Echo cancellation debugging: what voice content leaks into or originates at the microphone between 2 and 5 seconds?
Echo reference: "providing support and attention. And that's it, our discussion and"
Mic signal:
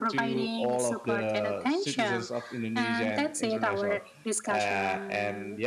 both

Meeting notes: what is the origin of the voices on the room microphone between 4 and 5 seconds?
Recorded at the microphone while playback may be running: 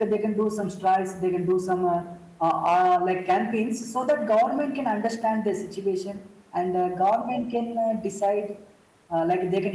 user only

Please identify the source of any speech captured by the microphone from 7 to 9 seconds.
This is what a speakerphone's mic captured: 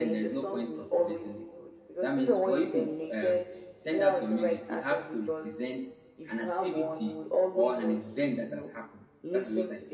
both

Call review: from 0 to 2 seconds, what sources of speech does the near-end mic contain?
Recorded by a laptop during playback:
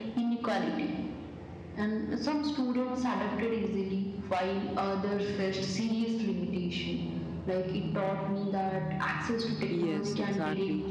echo only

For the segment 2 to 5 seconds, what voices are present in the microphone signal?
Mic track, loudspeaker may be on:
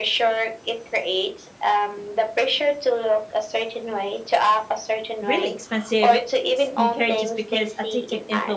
echo only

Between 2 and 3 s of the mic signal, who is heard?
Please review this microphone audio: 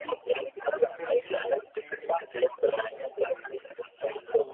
both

